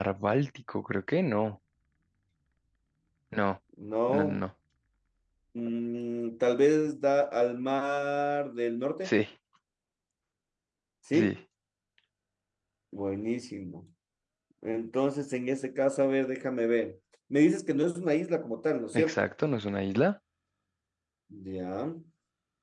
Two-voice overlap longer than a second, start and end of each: none

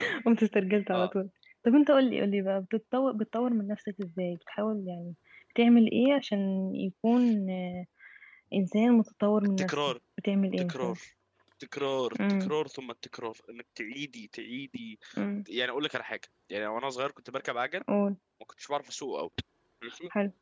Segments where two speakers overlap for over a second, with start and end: none

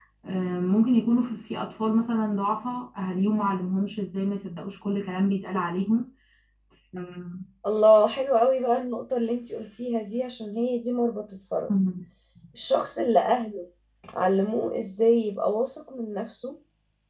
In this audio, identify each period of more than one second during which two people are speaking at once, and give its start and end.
none

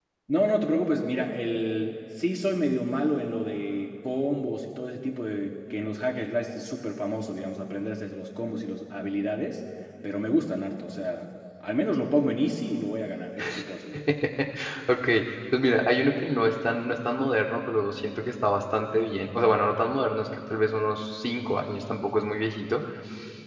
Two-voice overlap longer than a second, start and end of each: none

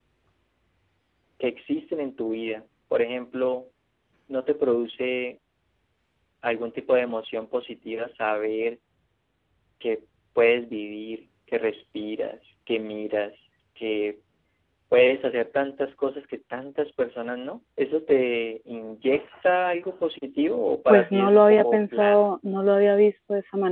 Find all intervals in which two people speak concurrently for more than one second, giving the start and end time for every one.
20.9-22.3

